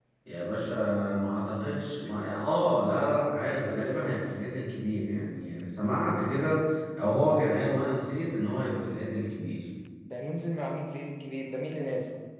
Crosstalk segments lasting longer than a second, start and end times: none

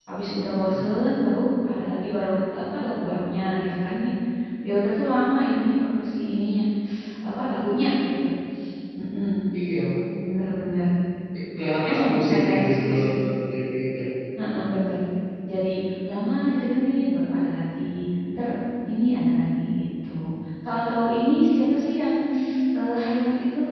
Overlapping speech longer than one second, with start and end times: 11.9-13.1

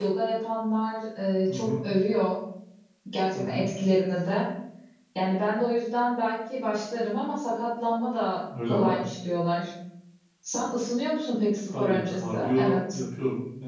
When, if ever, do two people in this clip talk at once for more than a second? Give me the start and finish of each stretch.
11.7-13.0

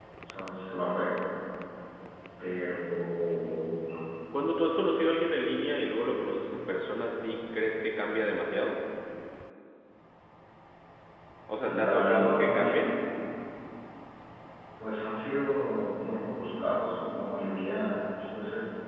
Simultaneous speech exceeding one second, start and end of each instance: 11.6-12.8

